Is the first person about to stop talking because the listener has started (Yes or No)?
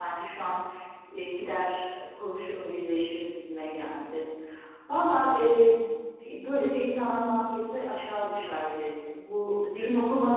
No